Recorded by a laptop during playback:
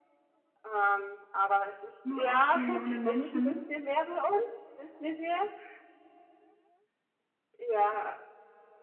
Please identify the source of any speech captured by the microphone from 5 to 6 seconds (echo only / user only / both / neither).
echo only